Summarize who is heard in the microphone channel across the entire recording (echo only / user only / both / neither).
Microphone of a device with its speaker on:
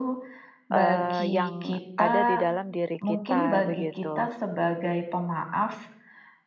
both